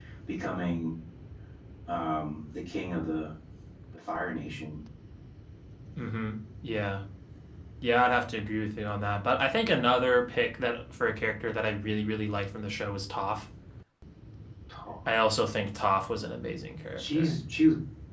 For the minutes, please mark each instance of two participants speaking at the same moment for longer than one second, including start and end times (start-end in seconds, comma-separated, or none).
none